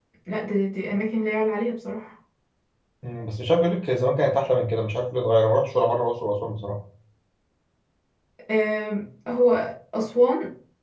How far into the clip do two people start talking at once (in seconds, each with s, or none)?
none